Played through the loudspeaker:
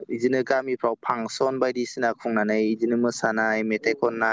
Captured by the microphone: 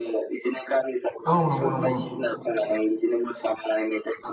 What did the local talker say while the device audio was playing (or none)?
औ नंगौ नोंथां नंगौ